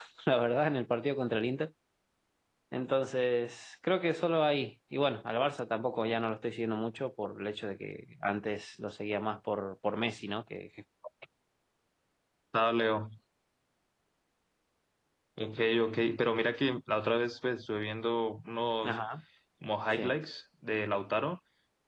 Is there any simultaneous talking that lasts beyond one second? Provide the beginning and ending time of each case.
none

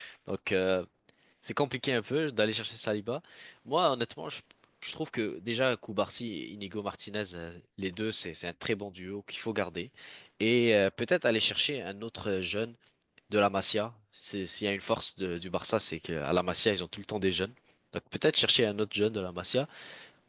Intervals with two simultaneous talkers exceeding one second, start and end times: none

